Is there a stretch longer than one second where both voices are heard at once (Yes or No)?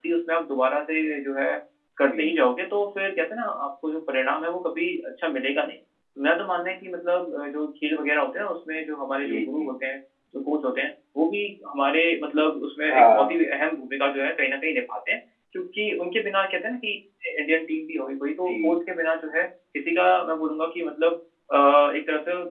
No